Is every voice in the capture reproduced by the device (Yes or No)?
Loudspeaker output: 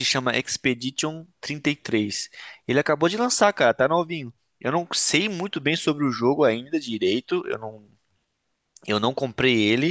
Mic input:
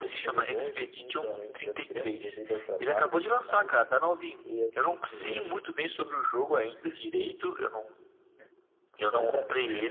No